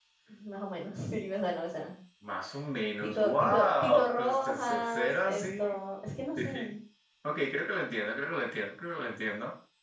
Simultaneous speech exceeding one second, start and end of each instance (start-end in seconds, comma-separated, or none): 3.0-5.8